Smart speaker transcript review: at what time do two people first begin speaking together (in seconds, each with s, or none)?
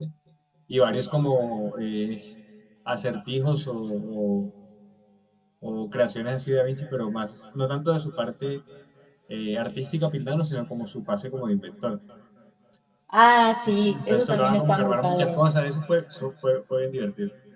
13.9 s